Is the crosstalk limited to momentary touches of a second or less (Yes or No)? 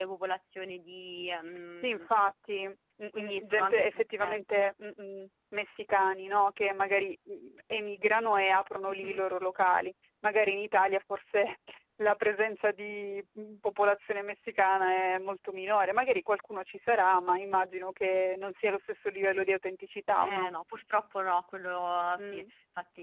No